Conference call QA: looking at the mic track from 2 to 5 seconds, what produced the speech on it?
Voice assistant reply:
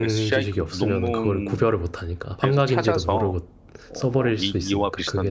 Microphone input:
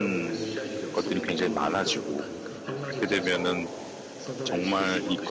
both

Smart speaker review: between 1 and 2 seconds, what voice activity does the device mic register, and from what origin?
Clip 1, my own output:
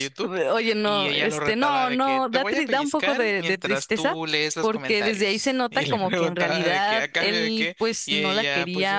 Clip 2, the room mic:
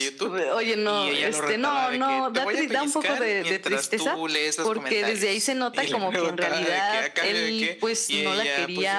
echo only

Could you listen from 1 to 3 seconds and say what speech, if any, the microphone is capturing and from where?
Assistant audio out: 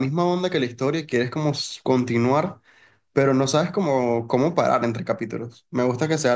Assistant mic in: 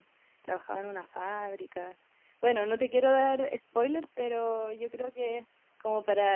user only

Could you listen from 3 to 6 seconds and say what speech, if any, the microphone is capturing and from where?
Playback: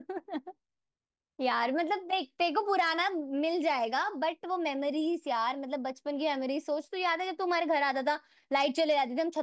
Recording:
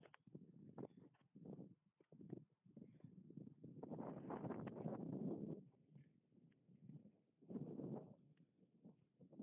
neither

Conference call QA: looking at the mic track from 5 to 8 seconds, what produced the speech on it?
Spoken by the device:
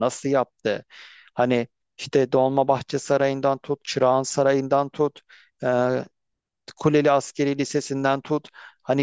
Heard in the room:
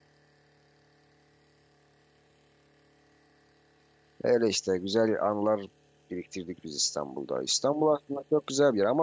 user only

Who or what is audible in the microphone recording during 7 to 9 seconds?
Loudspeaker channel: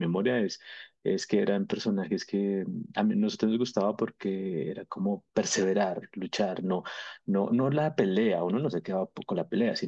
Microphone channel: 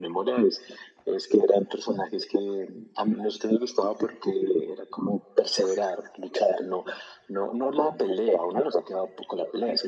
echo only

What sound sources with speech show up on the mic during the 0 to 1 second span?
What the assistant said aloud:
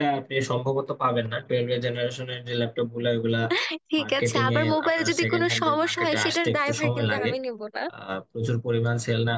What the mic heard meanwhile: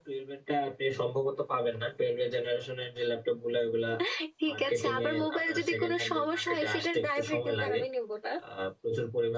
echo only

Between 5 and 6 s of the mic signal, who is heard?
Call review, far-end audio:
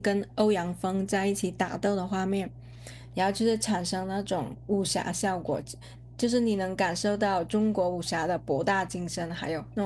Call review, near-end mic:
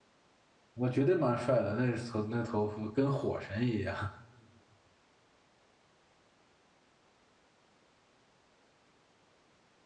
neither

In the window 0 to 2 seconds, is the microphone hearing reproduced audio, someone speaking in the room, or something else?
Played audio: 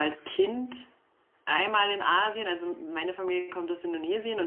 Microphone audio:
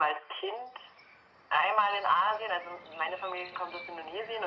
echo only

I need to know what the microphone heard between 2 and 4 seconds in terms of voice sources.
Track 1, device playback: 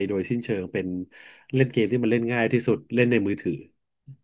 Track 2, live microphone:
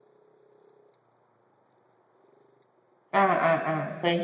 user only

